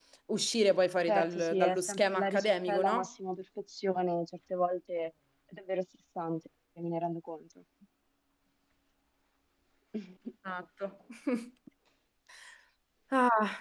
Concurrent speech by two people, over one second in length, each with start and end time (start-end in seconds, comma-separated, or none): 1.1-3.1